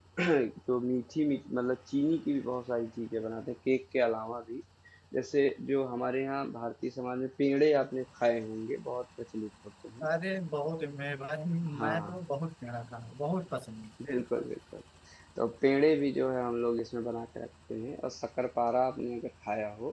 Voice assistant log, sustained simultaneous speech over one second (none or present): none